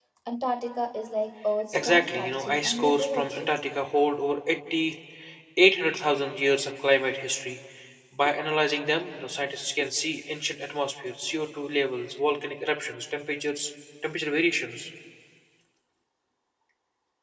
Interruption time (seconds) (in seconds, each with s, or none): 1.7 s